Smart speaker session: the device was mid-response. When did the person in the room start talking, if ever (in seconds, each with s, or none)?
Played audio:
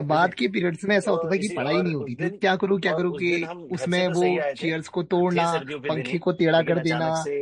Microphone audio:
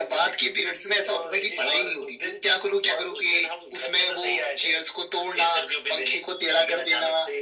none